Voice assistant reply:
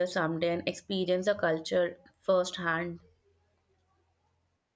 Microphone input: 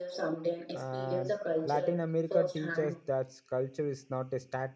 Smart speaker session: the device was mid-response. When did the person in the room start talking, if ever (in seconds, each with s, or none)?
0.7 s